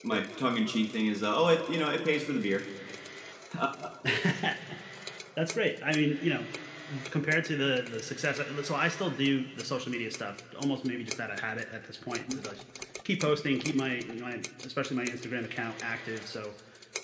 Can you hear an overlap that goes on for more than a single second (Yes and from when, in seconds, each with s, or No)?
No